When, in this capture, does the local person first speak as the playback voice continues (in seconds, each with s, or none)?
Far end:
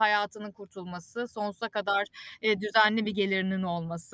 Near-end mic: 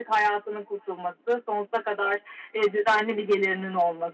none